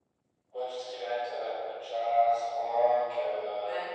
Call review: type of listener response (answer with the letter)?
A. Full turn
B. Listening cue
B